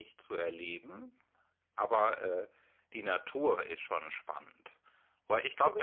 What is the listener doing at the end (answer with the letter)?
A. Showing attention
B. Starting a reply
B